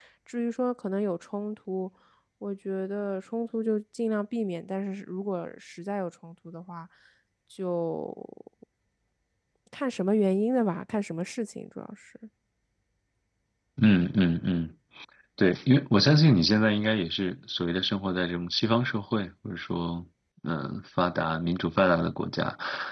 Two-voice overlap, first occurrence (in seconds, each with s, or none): none